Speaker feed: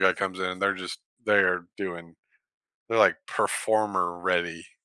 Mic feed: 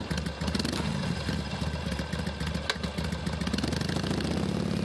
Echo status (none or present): none